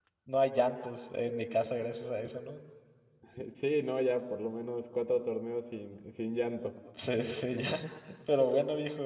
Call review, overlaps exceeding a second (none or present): none